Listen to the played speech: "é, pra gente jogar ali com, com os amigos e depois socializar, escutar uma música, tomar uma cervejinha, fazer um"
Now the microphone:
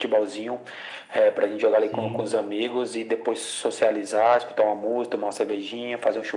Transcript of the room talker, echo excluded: sim,

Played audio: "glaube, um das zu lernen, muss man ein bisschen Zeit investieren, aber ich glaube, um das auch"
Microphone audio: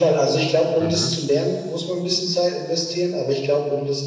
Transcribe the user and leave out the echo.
Mhm.

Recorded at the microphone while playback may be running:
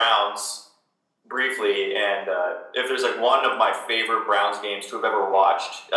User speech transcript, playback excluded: none

